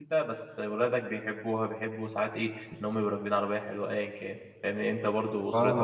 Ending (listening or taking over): listening